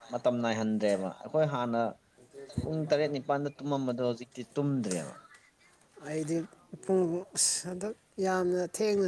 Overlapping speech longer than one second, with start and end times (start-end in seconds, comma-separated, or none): none